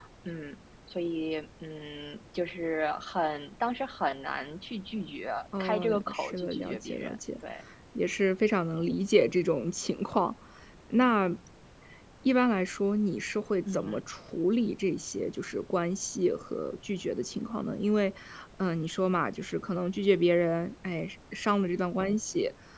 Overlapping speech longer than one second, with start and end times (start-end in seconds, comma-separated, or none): 5.6-7.2